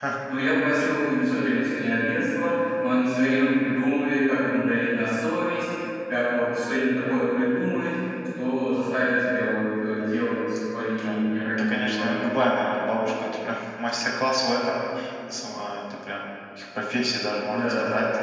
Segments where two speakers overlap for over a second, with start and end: 10.9-12.1

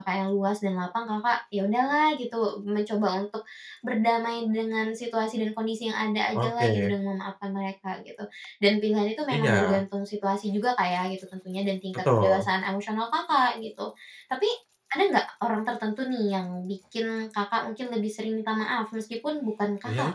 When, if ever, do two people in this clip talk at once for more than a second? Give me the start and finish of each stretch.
none

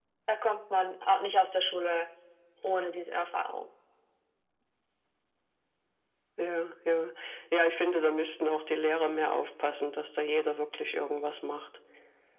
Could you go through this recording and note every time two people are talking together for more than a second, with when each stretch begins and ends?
none

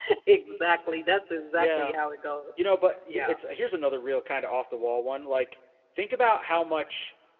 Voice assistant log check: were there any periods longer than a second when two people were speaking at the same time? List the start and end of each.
none

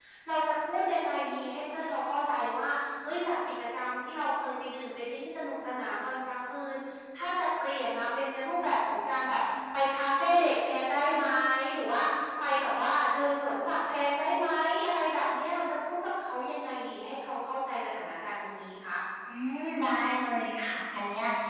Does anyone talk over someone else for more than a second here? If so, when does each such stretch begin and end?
none

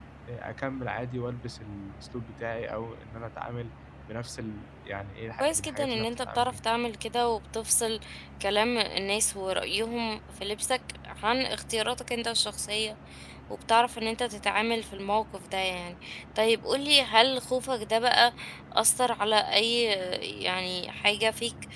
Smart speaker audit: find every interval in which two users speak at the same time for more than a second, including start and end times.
5.4-6.6

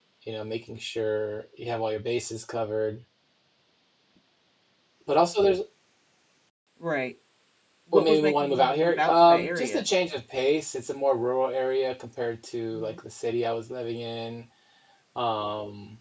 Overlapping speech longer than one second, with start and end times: 7.9-9.8

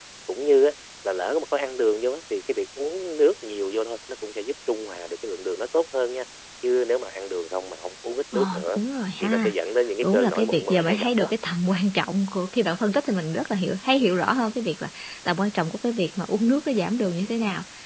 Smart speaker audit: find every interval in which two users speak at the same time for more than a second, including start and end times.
10.0-11.3

